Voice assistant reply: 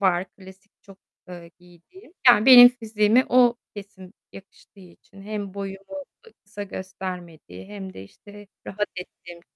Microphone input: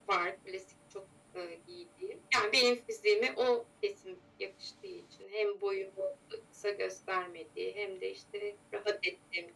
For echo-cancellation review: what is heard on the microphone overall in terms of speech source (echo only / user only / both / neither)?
echo only